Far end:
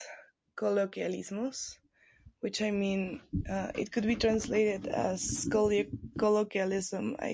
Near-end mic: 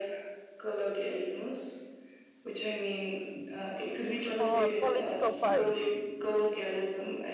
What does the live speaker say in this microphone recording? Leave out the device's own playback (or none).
Uh, political party.